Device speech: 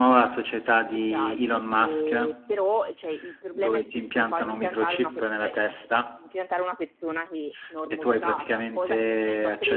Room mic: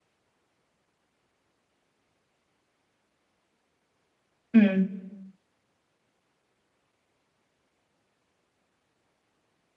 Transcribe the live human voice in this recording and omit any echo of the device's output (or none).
Mm,